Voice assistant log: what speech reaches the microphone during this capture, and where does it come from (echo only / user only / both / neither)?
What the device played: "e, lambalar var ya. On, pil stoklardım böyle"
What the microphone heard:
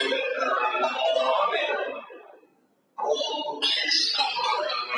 echo only